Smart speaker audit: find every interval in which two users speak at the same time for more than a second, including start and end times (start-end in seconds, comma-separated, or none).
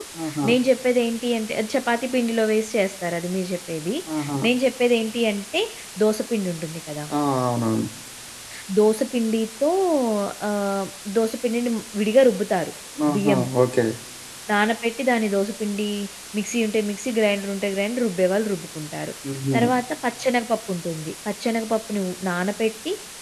none